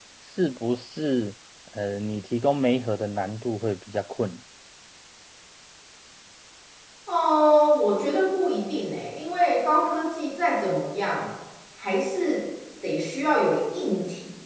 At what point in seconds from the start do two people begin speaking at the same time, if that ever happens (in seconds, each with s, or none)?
none